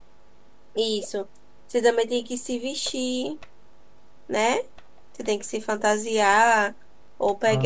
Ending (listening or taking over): listening